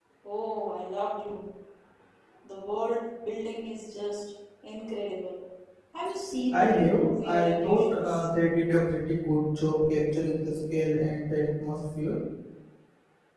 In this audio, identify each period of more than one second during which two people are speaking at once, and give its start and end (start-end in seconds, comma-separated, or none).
6.5-8.0